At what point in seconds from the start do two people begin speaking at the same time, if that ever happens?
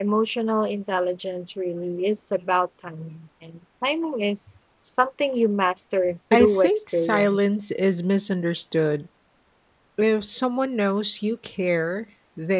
6.3 s

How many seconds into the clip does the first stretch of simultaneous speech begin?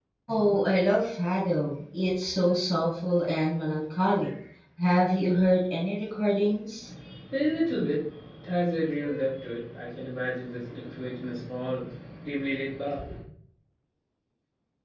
none

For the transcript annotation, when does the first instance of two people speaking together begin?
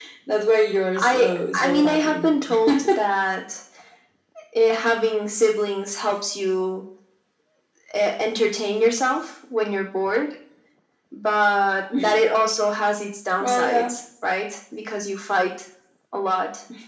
1.0 s

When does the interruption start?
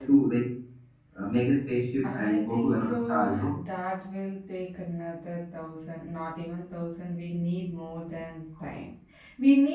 2.0 s

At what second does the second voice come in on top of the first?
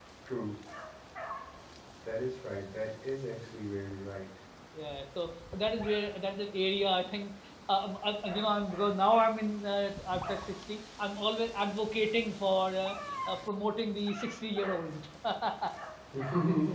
none

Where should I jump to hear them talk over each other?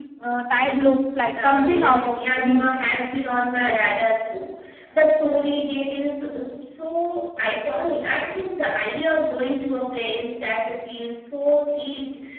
1.4 s

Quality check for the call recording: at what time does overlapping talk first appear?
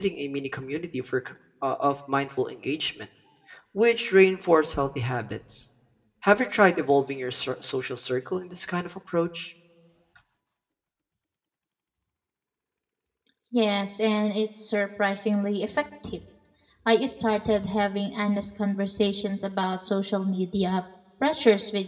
none

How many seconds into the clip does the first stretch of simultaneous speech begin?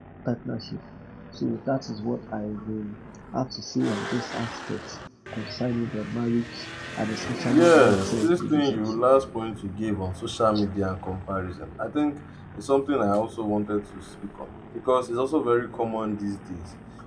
7.5 s

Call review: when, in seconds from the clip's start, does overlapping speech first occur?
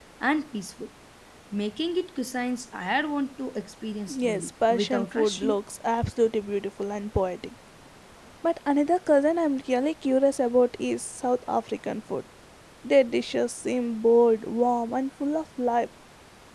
4.1 s

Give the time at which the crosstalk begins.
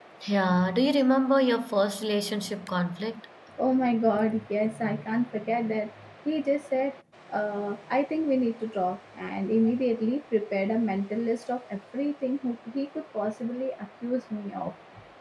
none

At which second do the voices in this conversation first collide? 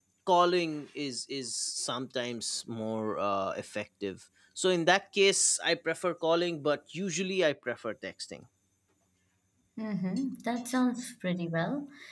none

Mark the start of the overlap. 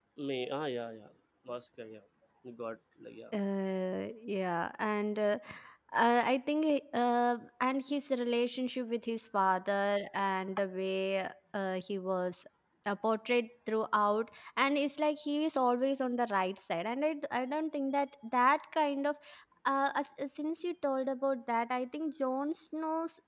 none

